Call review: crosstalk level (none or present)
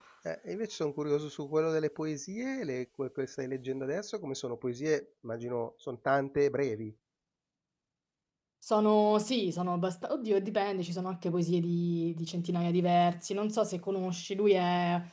none